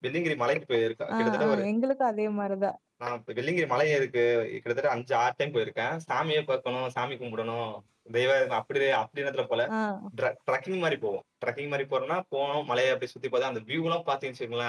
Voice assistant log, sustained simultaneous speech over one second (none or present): none